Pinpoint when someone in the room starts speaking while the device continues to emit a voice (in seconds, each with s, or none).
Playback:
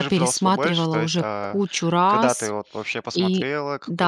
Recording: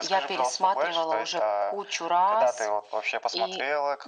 none